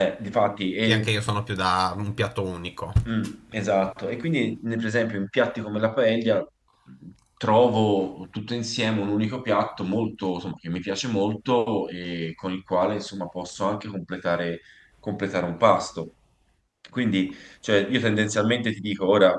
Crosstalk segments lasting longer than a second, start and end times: none

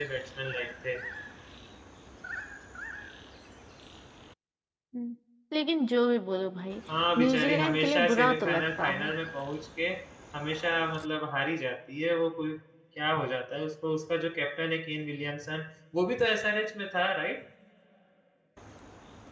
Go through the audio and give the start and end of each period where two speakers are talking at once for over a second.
7.2-9.1

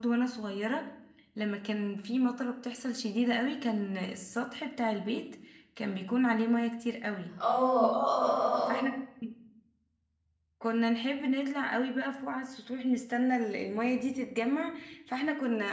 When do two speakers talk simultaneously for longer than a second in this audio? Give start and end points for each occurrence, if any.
none

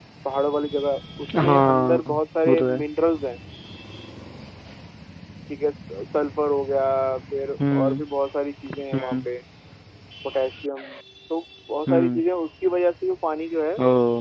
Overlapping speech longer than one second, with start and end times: 1.4-2.8

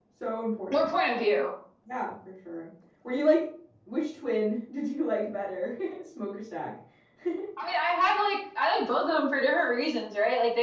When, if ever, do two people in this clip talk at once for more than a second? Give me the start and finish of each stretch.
none

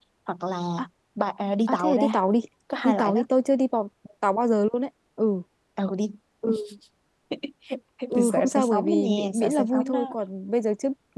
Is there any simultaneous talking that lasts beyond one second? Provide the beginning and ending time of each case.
8.1-10.2

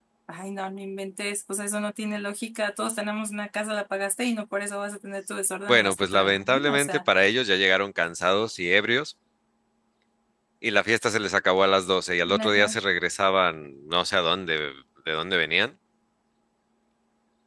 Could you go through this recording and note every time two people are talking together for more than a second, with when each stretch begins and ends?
5.7-7.0

